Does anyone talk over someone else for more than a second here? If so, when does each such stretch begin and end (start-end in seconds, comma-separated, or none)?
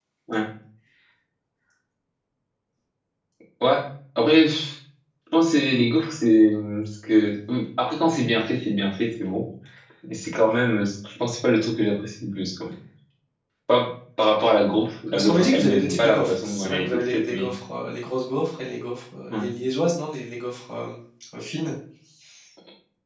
15.1-17.5